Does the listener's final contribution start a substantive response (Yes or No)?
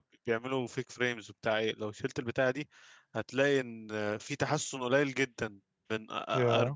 No